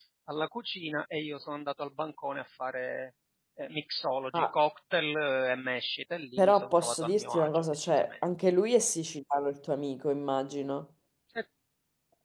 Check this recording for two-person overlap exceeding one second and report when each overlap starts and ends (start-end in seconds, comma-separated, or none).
6.4-8.1